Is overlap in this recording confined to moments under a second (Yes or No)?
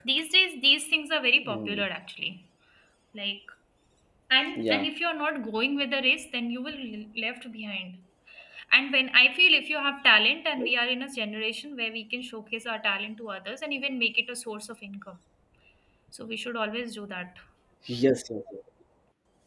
Yes